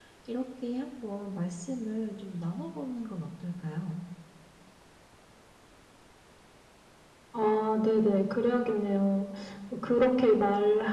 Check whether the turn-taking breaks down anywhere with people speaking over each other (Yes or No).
No